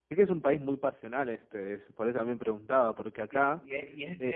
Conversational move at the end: taking over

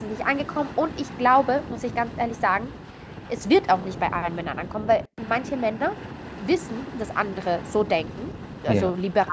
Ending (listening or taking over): listening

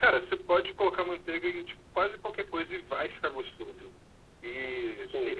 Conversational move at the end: listening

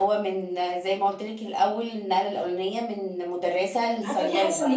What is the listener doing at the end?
taking over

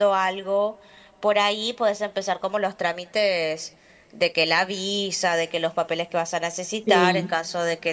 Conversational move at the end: listening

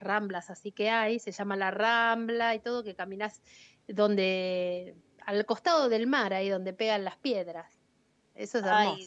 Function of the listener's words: taking over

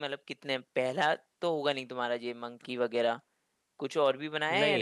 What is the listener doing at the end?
taking over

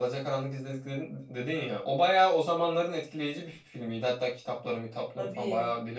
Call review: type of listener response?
listening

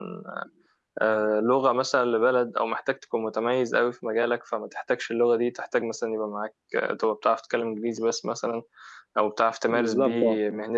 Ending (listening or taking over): listening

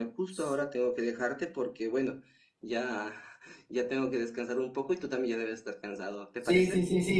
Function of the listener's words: taking over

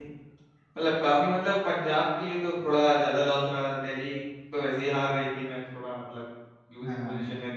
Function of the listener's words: taking over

